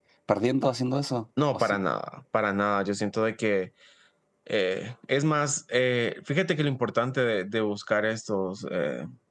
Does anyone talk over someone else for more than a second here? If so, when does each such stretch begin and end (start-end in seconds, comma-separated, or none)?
none